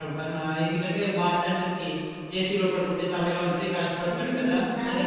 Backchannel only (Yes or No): No